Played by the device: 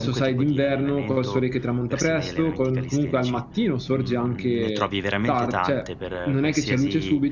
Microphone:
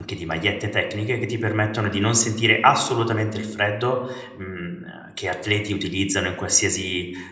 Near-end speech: present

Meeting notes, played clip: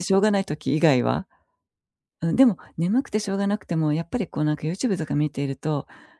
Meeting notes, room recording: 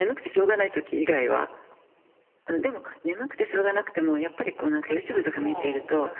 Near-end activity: present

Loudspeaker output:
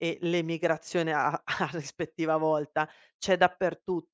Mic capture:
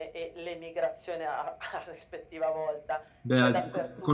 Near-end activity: present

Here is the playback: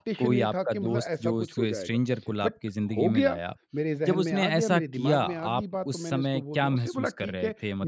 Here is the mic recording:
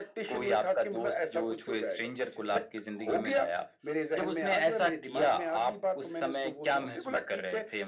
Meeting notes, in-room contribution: none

